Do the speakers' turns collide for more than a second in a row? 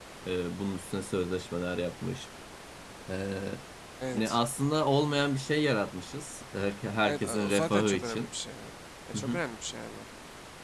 Yes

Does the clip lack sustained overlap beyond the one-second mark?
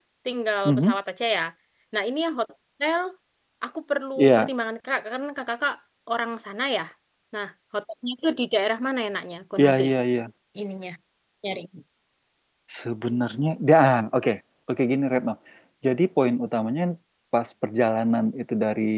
Yes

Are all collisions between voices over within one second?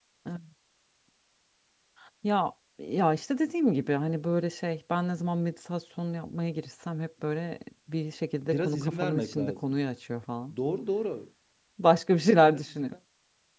No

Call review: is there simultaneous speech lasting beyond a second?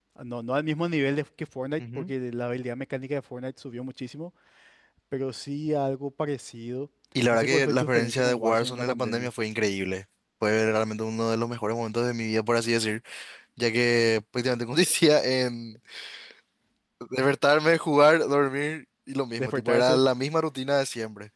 Yes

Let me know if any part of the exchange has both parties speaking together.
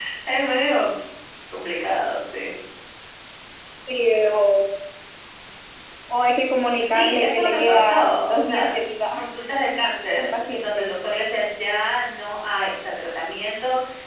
Yes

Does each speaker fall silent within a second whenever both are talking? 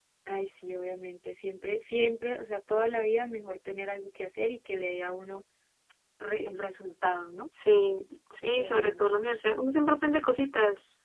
Yes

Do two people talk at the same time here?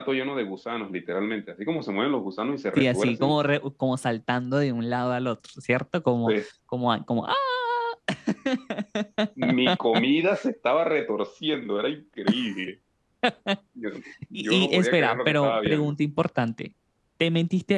Yes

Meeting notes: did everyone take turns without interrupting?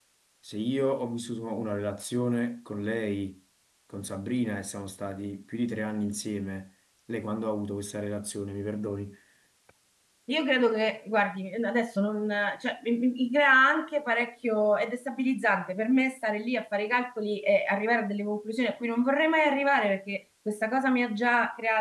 Yes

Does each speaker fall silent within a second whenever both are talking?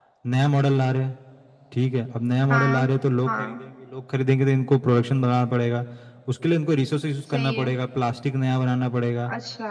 Yes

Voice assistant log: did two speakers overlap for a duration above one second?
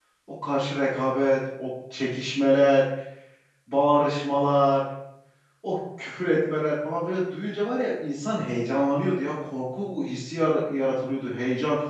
No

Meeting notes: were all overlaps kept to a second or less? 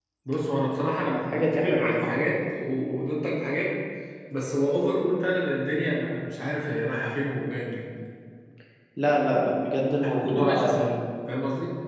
No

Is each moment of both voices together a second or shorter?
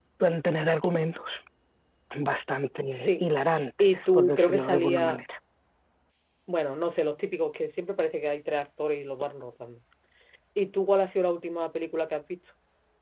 No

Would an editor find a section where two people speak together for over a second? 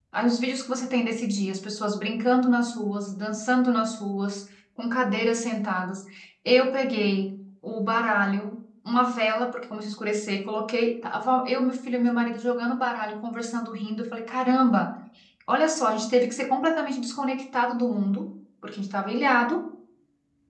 No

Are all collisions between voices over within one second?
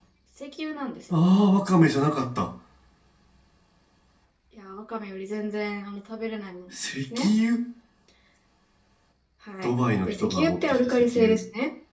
No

